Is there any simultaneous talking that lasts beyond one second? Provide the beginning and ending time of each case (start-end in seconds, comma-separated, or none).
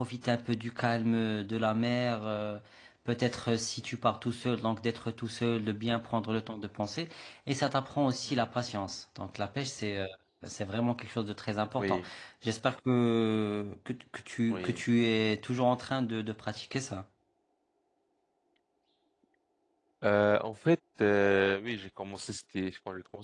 none